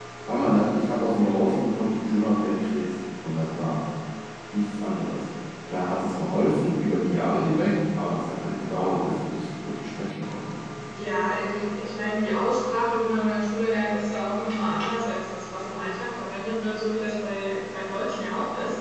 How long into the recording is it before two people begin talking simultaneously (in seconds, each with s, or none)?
none